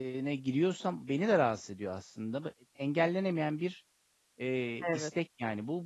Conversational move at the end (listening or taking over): listening